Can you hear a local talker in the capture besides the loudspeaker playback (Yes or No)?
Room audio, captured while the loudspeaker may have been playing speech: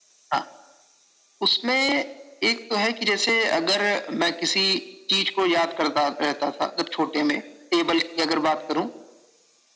No